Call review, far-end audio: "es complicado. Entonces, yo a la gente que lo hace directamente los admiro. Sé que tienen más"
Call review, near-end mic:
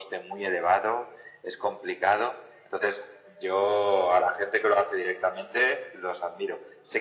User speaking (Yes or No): No